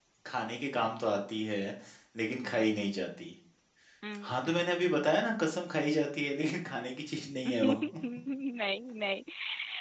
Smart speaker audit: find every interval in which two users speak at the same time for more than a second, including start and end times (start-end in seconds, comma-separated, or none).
none